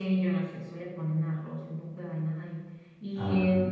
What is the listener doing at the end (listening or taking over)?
listening